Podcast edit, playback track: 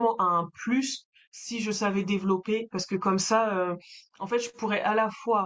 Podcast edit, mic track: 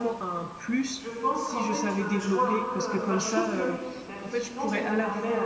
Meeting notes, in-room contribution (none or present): present